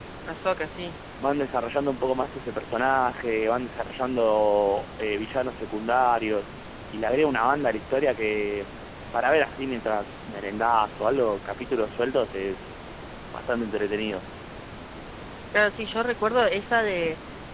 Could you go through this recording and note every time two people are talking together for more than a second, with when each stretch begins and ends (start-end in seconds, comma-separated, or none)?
none